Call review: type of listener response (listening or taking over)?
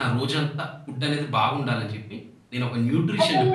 listening